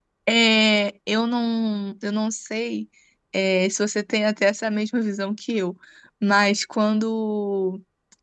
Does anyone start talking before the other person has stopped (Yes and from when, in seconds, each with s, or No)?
No